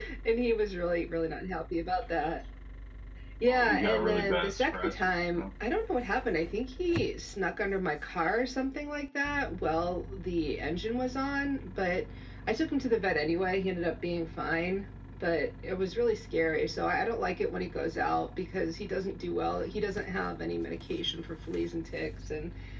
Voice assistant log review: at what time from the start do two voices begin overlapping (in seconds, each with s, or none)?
3.5 s